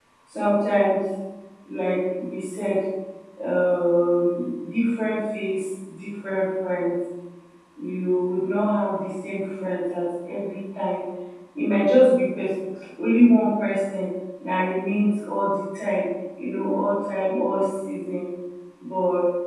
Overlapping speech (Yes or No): No